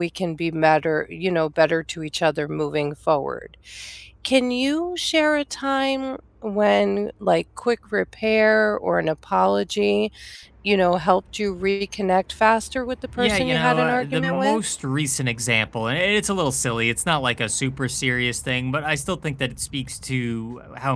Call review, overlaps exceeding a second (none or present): present